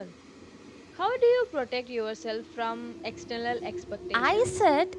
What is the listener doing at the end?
taking over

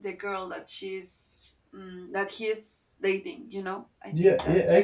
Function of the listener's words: taking over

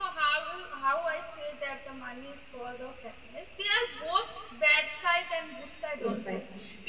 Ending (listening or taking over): listening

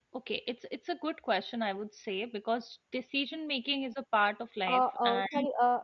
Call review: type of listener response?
taking over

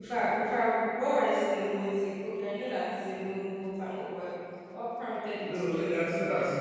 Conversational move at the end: taking over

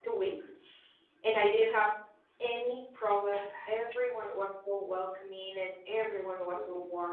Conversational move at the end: listening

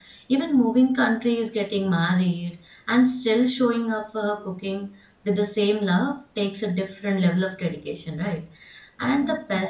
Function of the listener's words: listening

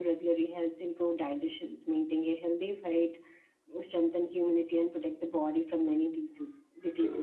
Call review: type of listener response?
taking over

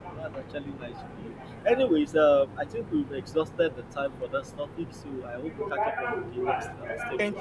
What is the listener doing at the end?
taking over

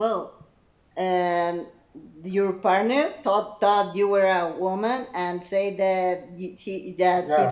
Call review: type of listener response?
listening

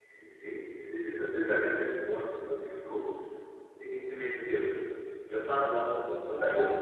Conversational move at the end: taking over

